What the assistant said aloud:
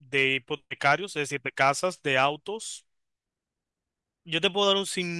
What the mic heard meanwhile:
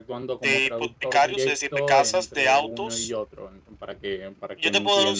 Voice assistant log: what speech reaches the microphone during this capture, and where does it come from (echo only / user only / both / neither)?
both